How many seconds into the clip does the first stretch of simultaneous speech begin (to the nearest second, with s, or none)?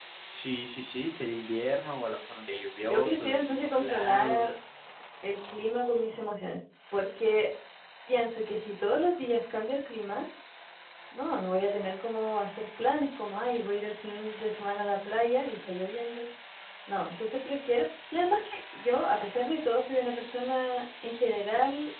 3 s